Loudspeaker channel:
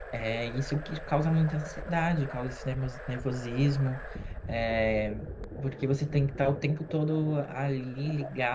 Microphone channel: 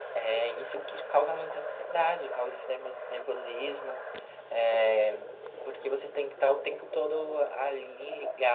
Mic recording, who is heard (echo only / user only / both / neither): echo only